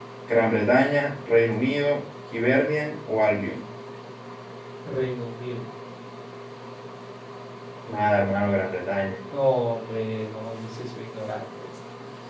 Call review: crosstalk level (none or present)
none